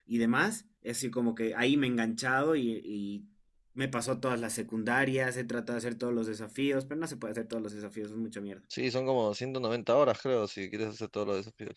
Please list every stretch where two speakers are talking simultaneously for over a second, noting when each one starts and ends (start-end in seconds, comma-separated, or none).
none